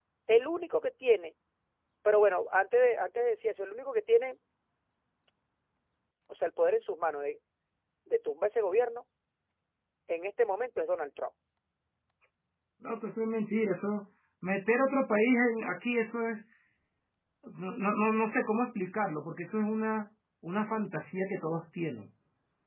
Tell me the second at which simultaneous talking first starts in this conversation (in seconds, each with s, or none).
none